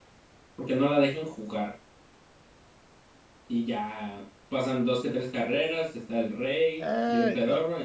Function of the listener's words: taking over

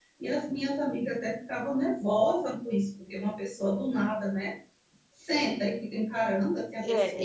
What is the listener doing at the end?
taking over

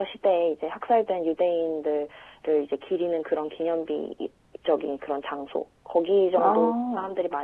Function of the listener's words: listening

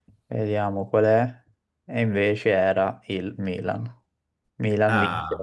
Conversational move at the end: listening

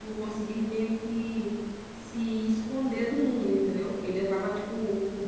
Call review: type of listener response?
listening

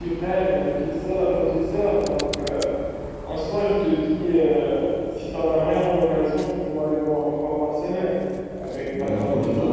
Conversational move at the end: taking over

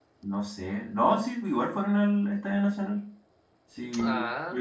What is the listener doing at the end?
listening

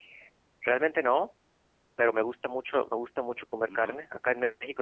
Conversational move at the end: listening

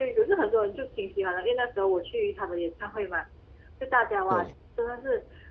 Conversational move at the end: listening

